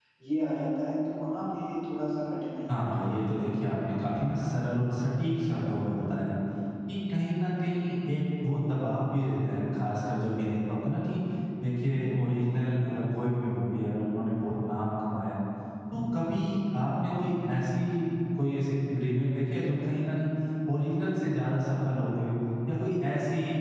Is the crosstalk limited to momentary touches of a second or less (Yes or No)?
Yes